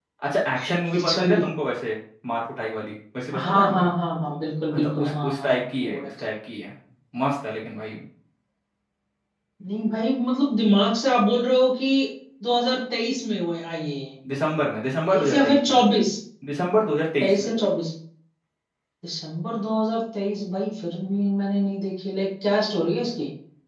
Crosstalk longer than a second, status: present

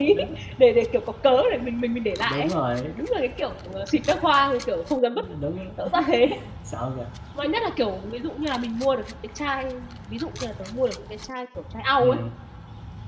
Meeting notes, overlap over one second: none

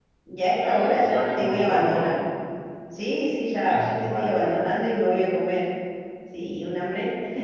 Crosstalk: present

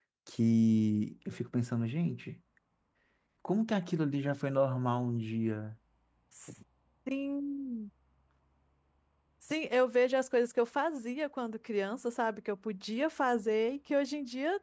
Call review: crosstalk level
none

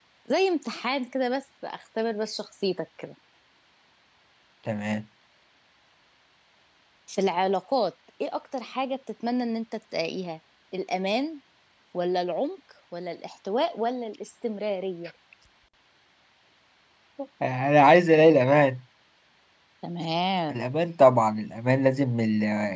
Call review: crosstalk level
none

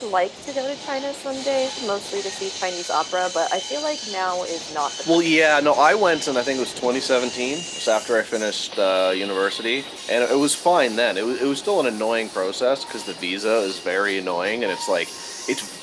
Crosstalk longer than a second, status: none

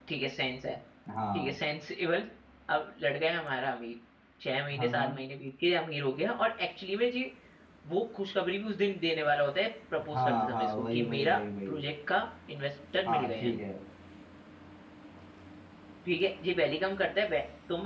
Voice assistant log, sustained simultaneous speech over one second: present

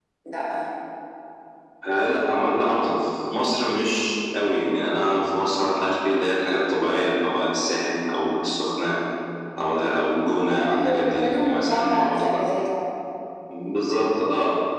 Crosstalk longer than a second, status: present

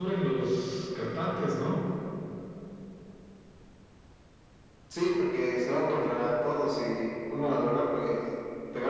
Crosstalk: none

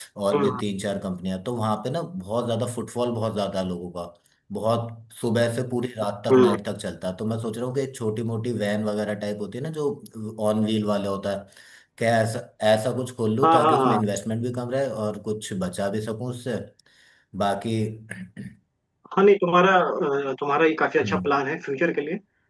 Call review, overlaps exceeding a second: none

